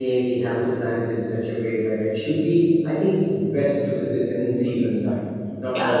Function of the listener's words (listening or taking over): taking over